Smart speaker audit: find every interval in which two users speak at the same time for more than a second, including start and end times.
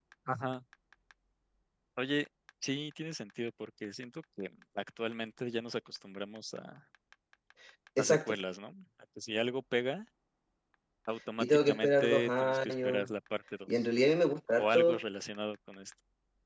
11.4-13.1

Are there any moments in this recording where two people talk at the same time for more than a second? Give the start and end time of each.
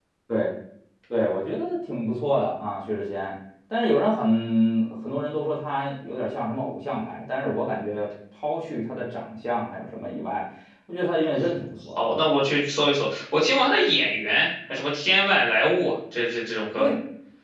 none

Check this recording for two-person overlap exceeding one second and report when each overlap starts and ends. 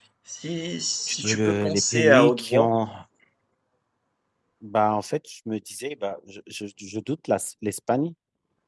1.2-2.7

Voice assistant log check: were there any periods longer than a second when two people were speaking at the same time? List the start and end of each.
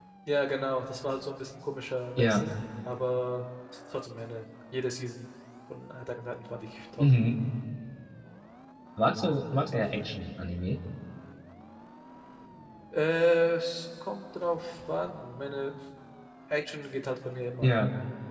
none

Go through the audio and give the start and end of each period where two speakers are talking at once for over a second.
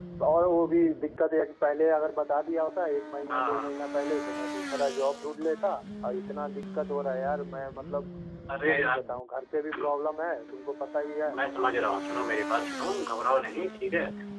none

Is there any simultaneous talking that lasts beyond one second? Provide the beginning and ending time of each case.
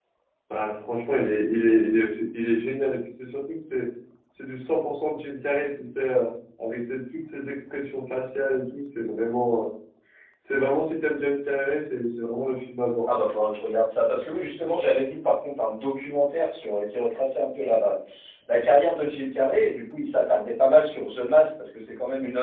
none

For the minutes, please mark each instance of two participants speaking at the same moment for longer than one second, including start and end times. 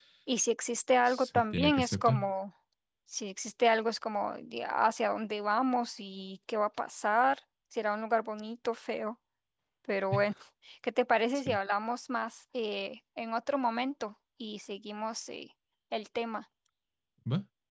1.1-2.3

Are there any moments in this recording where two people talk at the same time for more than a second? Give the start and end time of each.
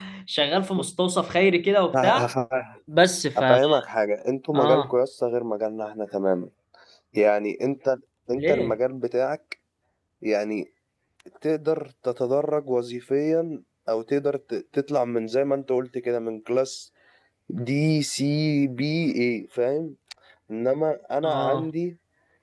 none

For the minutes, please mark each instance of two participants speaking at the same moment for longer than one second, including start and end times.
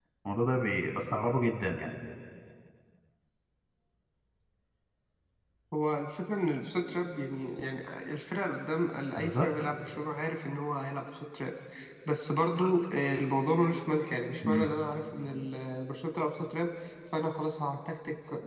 none

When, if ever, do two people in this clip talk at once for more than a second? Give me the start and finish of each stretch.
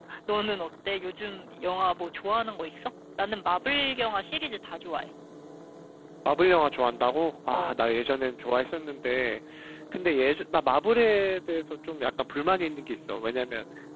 none

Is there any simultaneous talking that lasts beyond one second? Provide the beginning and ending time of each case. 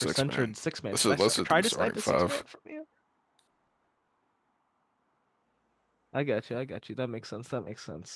0.9-2.4

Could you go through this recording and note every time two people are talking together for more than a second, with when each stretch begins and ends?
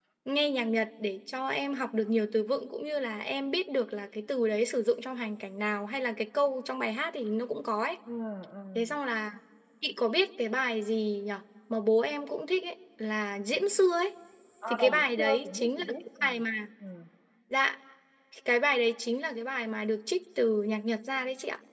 14.7-16.2

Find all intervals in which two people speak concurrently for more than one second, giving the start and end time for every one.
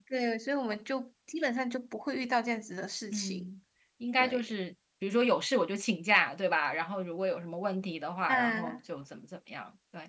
none

